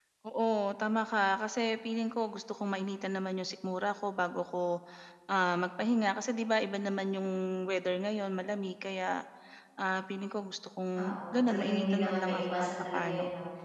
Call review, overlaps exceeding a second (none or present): present